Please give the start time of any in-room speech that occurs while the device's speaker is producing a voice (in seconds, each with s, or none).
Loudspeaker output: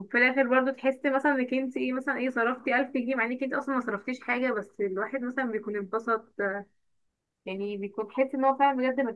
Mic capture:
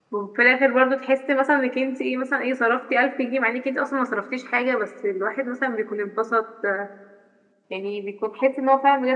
none